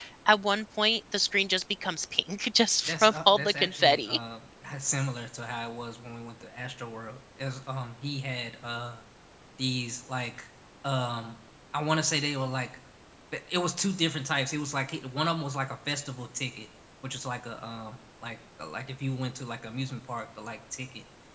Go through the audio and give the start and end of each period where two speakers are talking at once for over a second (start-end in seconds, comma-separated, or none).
2.9-4.2